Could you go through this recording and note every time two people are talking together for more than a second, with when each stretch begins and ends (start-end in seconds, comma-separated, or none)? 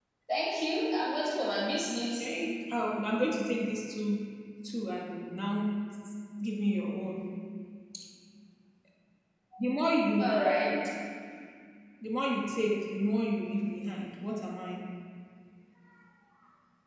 none